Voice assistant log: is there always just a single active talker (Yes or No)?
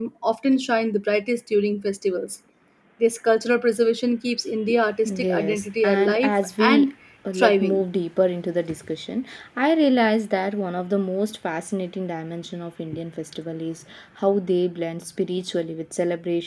No